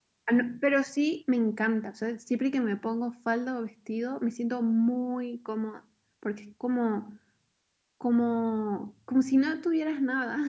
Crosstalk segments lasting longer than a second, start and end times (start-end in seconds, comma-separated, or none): none